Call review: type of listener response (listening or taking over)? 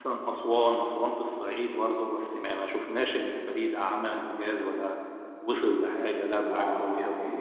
taking over